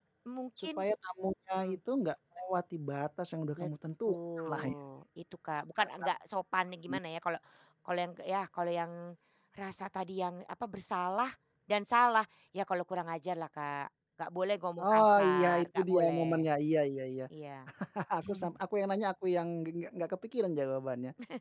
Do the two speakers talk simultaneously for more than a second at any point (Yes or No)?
Yes